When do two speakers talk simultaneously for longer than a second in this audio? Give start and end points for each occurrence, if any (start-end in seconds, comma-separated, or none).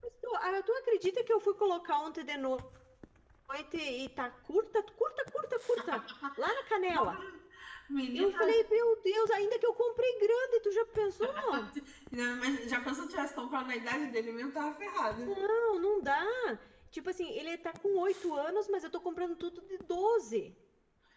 none